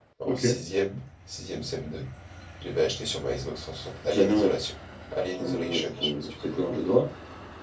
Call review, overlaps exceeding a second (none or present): present